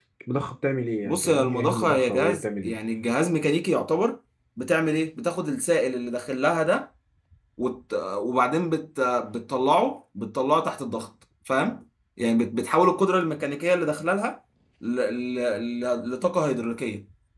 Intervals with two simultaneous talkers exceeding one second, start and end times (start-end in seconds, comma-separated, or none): 1.0-2.8